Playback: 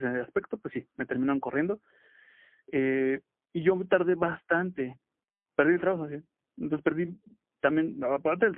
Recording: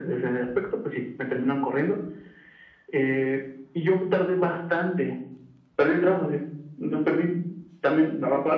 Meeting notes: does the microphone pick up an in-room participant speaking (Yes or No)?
No